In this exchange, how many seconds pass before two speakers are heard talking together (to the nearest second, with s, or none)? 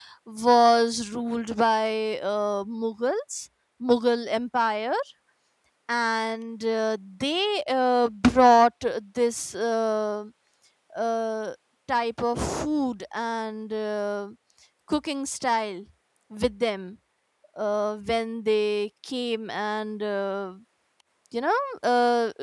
none